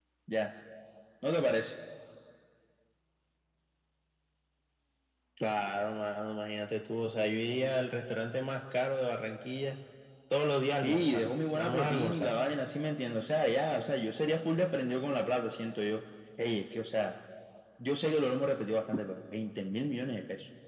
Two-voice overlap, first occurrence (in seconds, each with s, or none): 10.8 s